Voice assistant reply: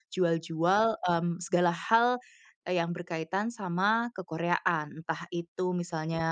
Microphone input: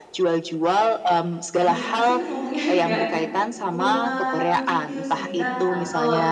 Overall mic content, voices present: both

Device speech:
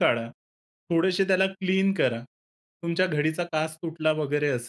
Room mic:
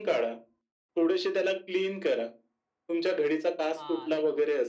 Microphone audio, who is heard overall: both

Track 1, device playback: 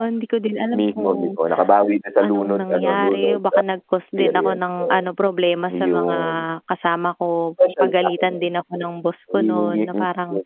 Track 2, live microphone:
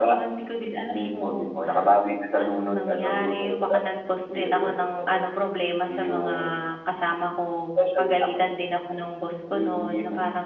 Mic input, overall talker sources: echo only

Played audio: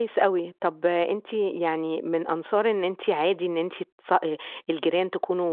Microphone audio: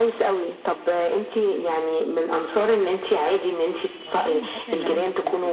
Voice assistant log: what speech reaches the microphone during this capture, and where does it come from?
both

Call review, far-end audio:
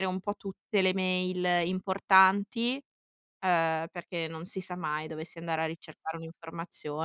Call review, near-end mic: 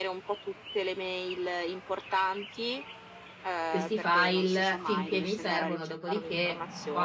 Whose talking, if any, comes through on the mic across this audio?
both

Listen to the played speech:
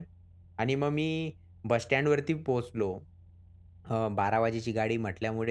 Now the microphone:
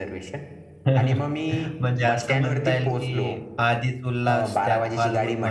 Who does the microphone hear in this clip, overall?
both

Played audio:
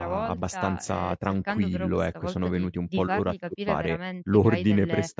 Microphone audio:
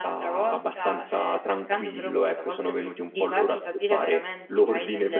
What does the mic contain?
echo only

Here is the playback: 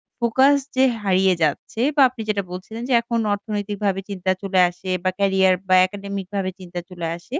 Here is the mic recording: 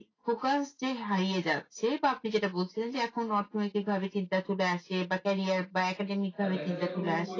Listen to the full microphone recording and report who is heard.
both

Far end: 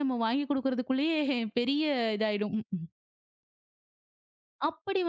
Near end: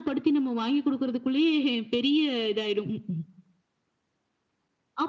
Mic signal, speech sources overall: echo only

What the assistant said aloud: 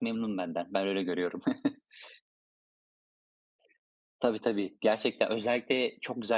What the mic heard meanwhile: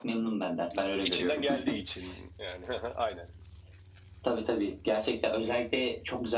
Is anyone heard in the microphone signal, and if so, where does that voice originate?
both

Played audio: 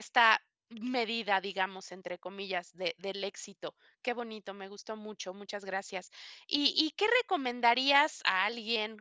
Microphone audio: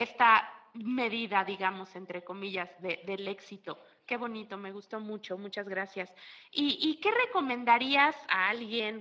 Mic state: echo only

